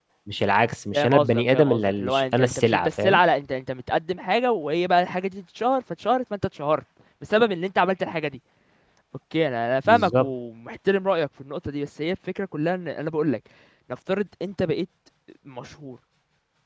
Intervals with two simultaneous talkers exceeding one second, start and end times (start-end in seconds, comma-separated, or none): 0.9-3.2